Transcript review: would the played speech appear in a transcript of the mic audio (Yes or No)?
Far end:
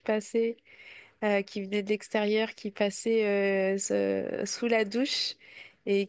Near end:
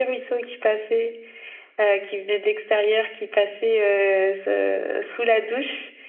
Yes